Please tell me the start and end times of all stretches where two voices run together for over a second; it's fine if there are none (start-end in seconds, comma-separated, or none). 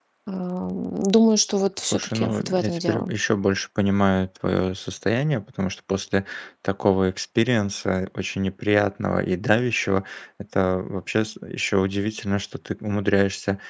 1.8-3.1